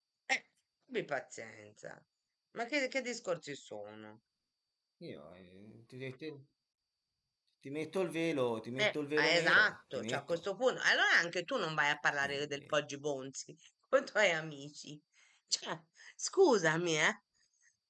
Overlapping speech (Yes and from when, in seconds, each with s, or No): Yes, from 8.8 s